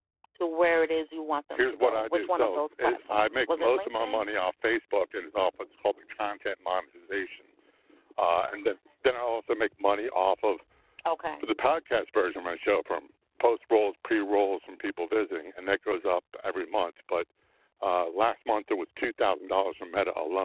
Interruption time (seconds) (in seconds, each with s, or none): 1.6 s